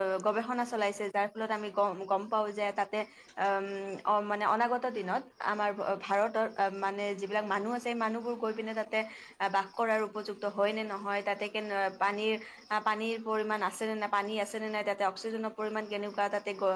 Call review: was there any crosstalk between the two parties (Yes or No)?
No